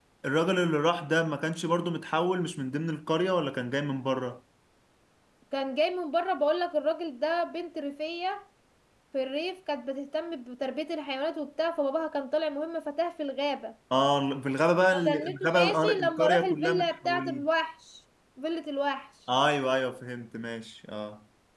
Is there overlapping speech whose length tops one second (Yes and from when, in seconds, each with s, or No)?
Yes, from 14.9 s